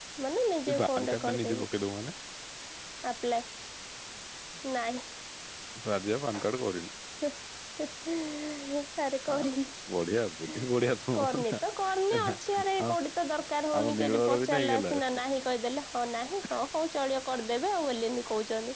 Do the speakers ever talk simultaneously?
Yes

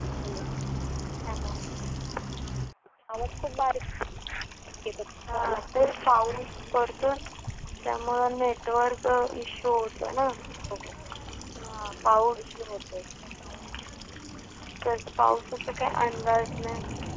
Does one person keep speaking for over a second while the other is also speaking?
No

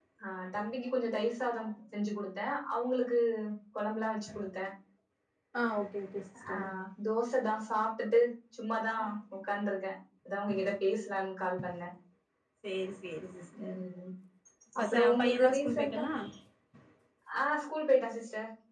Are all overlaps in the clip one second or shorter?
No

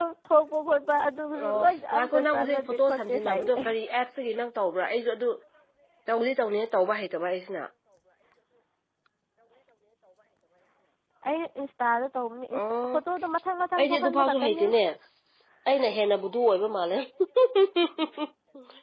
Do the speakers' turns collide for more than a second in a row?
Yes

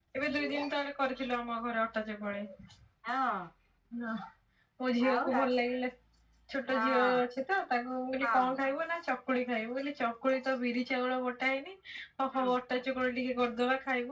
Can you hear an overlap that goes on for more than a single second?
No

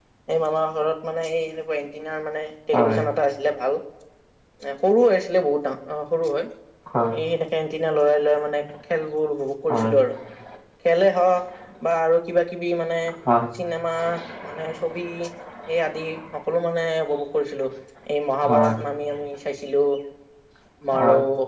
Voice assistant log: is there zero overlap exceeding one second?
Yes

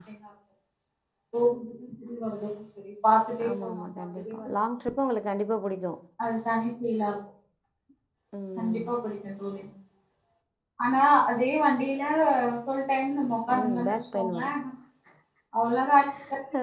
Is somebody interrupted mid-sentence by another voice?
Yes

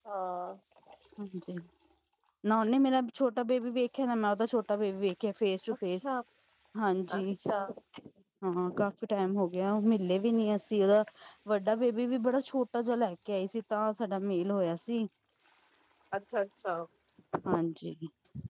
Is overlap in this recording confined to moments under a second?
Yes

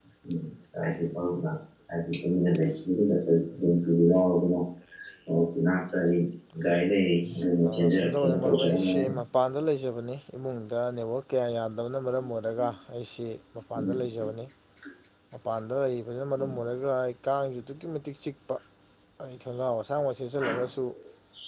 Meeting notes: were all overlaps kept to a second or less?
No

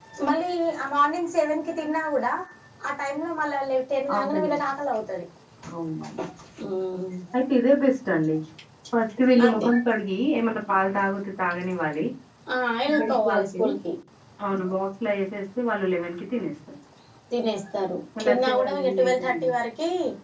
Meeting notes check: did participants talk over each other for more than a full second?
Yes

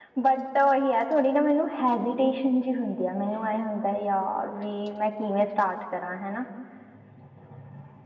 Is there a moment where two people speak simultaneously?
No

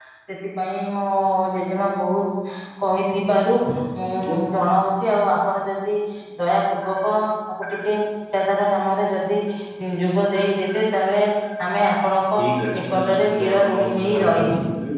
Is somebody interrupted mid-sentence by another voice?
Yes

